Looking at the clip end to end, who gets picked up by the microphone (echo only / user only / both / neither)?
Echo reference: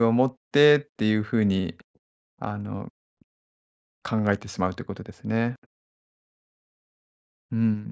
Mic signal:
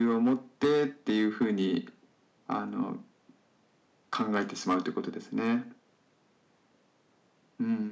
echo only